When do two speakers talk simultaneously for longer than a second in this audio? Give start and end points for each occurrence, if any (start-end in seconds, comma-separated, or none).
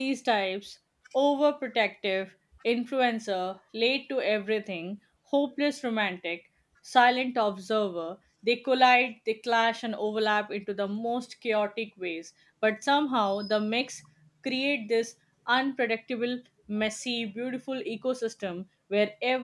none